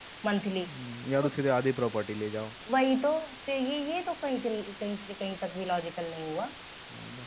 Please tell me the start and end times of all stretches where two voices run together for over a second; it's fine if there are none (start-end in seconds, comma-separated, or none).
none